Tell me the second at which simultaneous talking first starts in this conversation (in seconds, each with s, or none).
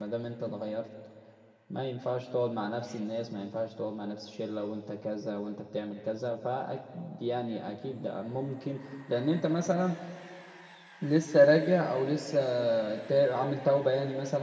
none